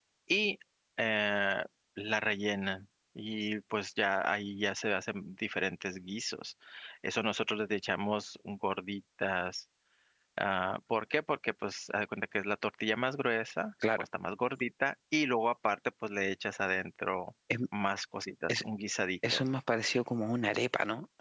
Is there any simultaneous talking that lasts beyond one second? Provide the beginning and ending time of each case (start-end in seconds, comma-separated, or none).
none